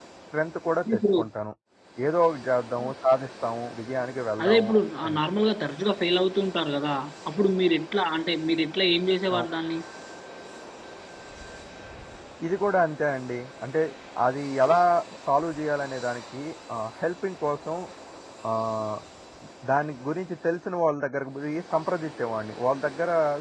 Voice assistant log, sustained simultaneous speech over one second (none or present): none